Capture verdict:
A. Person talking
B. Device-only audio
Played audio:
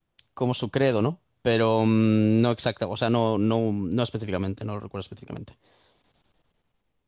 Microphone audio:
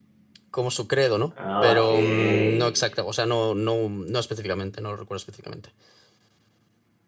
A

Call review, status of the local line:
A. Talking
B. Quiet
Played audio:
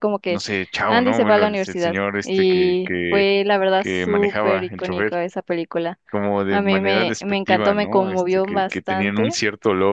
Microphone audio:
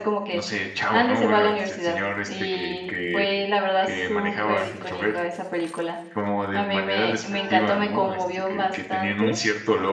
A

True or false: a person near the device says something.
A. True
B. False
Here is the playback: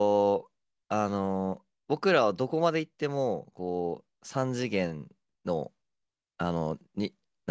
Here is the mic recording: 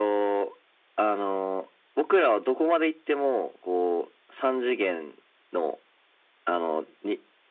B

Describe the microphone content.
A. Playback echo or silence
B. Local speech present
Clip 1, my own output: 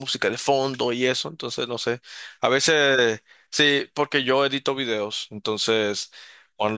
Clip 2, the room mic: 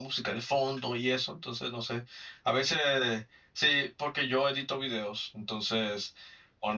A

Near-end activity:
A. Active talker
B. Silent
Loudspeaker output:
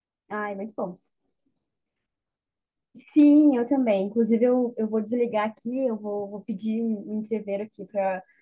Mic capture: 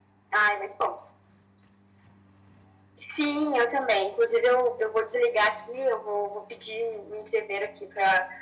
B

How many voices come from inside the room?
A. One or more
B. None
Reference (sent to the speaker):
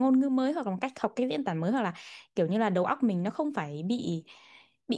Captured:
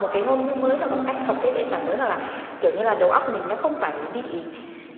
B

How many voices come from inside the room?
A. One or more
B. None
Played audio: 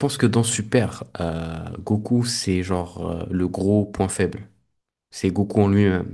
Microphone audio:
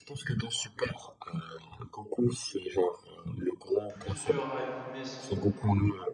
A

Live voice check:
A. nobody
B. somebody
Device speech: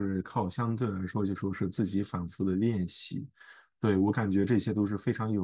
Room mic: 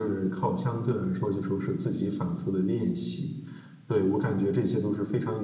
A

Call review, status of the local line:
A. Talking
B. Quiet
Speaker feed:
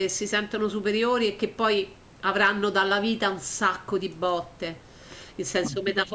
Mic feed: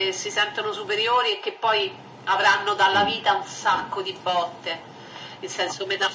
A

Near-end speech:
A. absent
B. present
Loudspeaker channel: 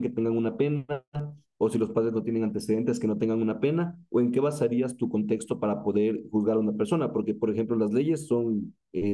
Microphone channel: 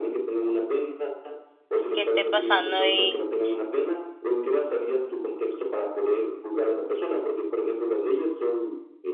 B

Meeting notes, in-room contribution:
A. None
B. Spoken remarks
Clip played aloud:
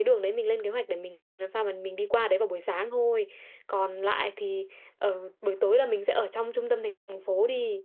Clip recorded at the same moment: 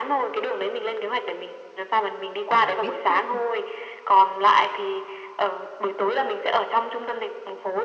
B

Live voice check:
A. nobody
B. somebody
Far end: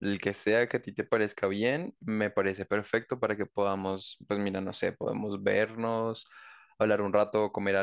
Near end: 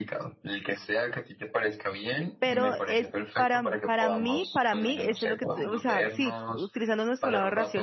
B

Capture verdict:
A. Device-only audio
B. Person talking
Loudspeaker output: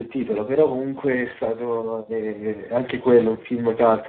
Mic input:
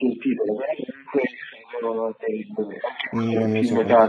B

